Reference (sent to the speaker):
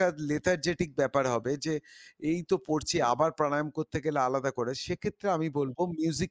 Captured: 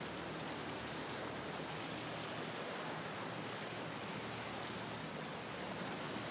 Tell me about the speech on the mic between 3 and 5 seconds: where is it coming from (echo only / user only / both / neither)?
neither